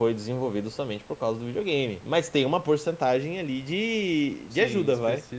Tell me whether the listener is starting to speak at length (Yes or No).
Yes